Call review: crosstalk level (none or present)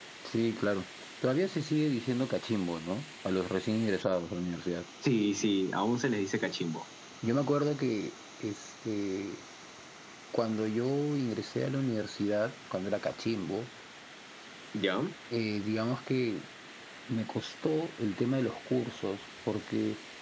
none